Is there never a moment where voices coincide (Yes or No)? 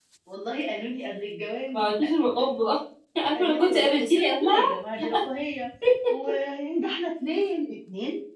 No